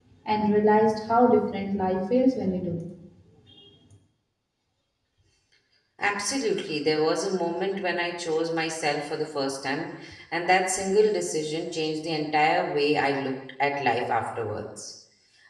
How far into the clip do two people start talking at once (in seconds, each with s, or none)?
none